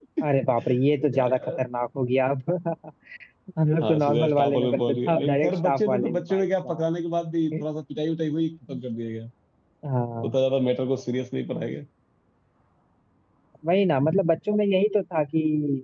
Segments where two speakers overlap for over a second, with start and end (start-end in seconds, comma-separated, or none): 3.8-6.8